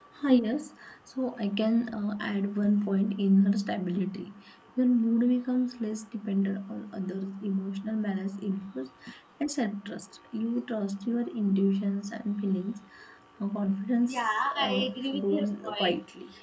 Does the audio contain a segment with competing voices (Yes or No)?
Yes